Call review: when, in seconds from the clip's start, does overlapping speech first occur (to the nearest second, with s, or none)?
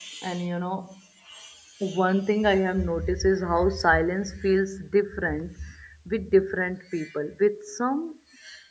none